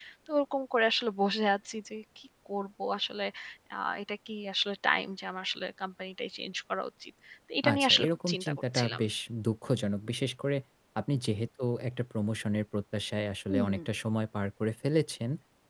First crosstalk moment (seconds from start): 7.7 s

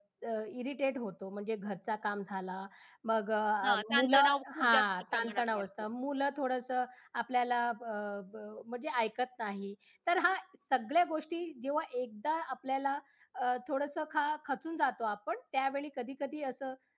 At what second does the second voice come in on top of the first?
3.6 s

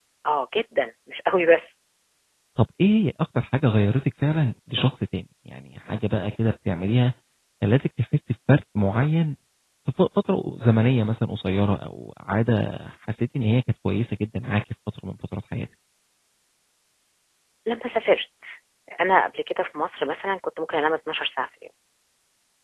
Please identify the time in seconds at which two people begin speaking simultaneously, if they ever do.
none

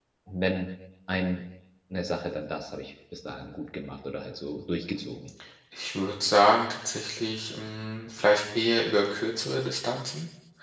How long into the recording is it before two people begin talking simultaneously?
none

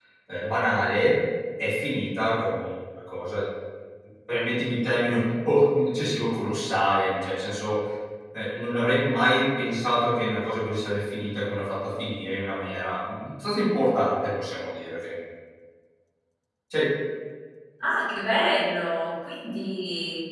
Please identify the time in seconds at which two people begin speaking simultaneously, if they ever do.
none

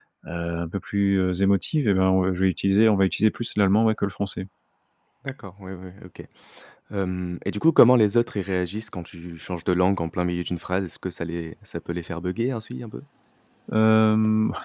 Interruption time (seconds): none

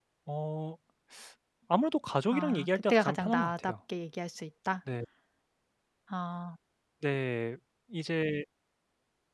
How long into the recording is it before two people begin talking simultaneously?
2.3 s

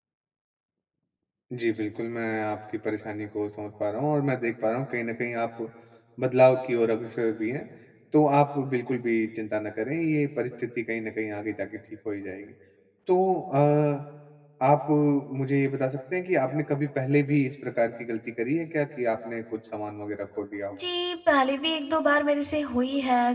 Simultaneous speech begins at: none

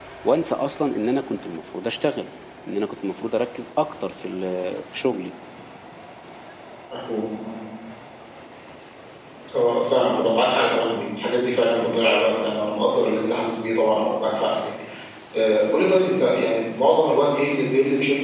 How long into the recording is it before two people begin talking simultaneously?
none

